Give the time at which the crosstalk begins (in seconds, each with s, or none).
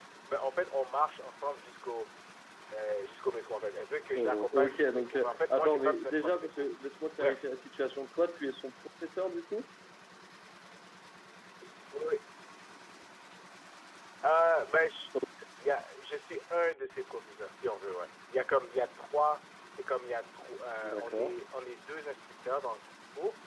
4.2 s